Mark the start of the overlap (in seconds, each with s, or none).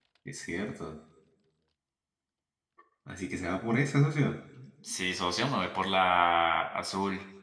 none